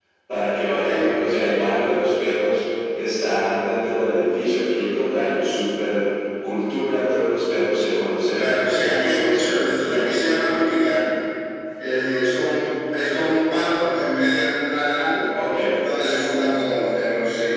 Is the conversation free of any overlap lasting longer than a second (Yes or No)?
No